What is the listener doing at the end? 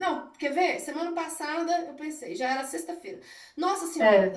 listening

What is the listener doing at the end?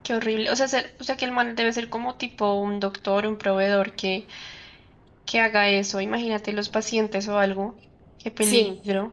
taking over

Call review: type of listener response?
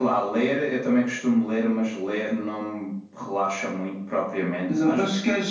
taking over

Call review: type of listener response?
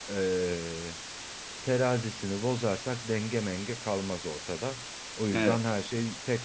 listening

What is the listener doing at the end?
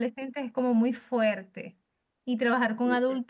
listening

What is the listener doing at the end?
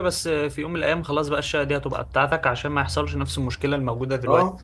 taking over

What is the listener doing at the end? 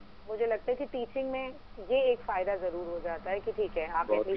taking over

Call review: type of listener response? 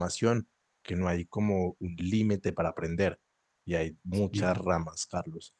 listening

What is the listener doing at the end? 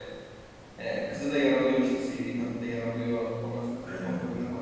listening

